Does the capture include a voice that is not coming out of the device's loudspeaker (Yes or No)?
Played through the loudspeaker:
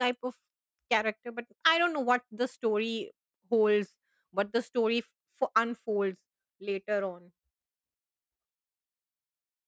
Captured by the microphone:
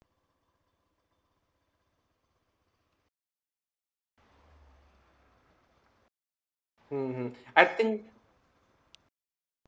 Yes